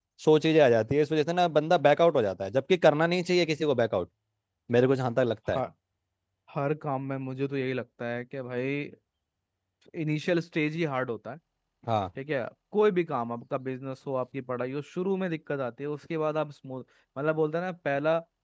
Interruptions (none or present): none